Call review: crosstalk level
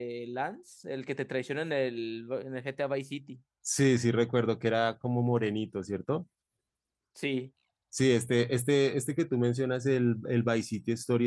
none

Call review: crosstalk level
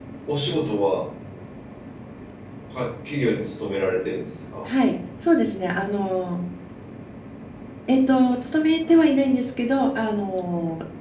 none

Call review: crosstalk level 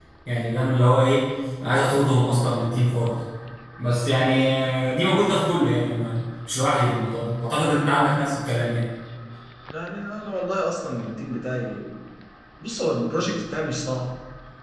none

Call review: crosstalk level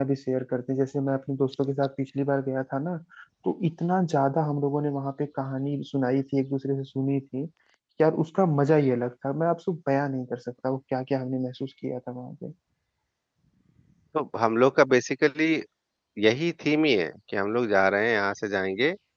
none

